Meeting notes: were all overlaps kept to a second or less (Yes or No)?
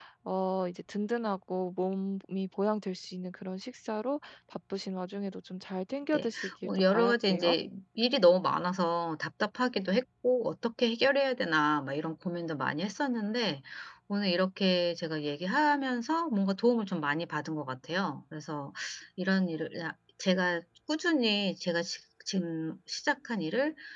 No